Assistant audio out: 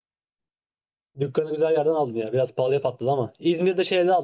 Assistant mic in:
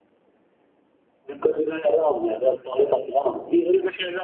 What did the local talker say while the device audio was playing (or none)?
none